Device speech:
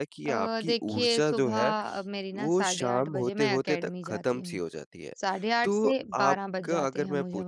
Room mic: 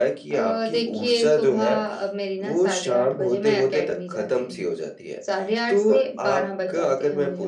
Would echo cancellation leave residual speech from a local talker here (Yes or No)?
No